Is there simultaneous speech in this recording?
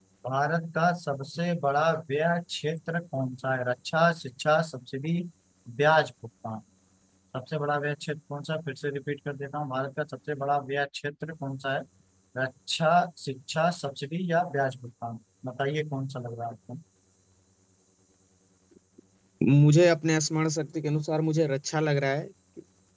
No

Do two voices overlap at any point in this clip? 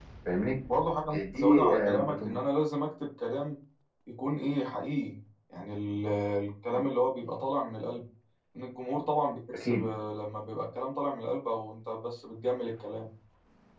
Yes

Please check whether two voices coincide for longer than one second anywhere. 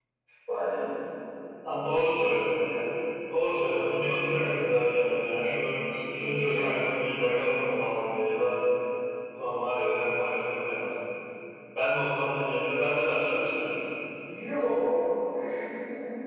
Yes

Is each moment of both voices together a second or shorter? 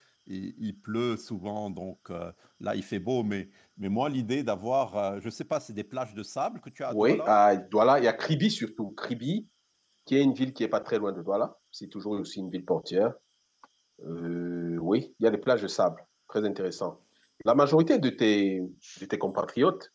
Yes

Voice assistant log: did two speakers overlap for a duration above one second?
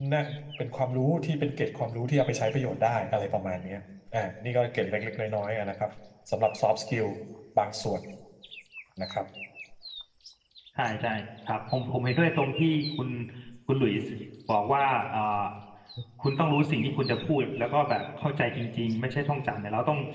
No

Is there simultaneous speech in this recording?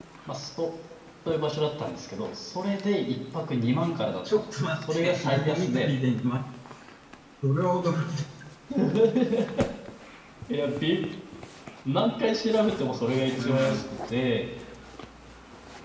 Yes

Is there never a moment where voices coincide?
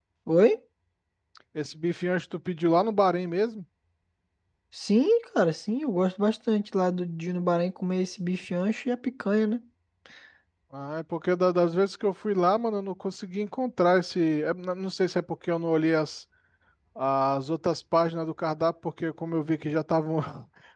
Yes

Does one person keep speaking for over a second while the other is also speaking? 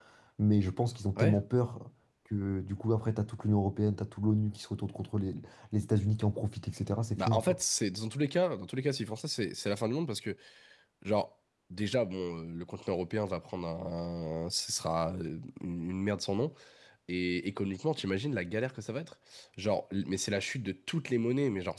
No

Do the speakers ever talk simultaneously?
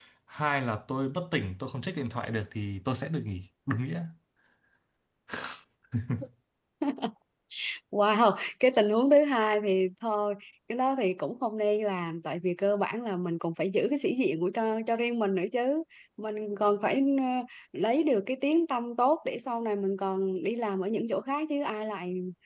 No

